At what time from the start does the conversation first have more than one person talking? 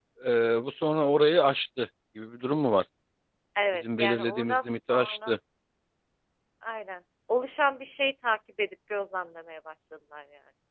3.8 s

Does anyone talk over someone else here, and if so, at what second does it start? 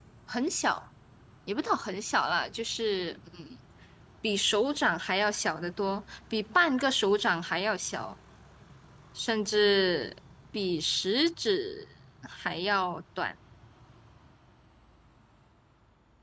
none

